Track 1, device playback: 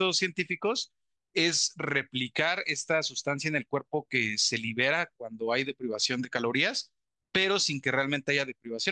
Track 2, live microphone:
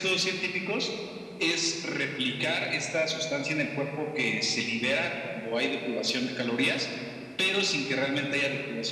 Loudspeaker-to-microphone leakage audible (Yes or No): Yes